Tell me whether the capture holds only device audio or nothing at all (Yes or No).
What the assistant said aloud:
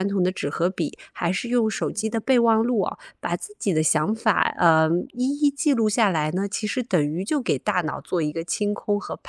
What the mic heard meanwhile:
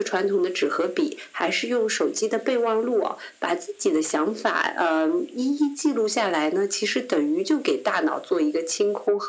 Yes